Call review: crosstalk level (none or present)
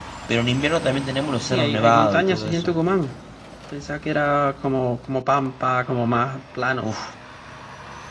present